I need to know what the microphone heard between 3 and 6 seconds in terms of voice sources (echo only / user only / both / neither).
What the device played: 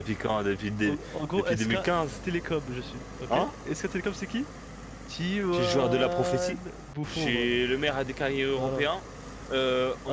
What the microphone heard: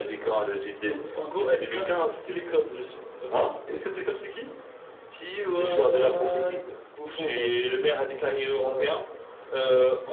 echo only